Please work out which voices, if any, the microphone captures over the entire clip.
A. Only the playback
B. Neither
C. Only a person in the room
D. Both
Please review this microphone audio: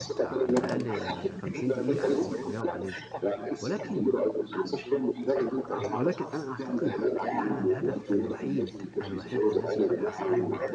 D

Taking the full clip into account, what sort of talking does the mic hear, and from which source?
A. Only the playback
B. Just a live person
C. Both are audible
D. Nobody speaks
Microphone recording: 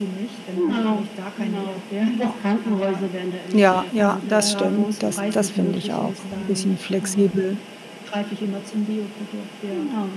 C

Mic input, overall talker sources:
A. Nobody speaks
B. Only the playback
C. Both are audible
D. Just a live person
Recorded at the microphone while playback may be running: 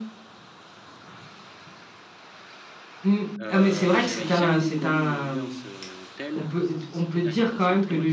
C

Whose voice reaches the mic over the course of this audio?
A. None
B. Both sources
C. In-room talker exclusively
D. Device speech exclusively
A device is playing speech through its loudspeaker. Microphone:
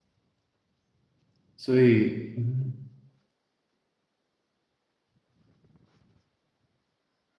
C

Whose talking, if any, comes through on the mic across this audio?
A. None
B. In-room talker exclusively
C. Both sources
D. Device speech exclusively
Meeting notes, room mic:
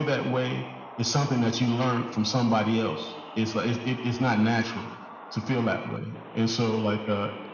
D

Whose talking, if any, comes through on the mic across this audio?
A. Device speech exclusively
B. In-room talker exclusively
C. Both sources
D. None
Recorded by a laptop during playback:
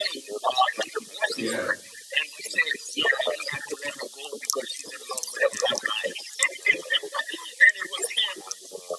C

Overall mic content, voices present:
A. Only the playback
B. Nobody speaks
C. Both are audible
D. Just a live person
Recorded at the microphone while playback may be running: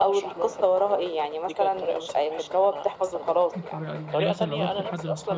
C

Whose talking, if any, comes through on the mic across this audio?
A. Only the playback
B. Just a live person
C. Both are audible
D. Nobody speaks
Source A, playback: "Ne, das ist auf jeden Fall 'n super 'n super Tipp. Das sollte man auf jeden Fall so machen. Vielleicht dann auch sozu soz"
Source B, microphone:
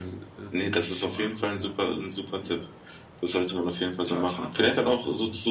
C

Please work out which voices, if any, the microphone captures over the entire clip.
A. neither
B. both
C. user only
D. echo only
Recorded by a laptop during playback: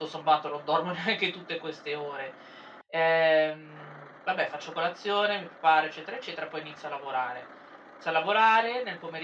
C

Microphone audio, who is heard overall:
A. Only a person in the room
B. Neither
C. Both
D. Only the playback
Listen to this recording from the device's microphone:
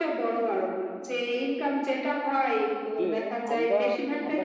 C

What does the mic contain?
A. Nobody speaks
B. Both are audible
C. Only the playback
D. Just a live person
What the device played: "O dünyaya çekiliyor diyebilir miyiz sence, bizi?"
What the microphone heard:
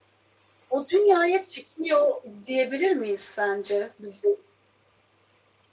C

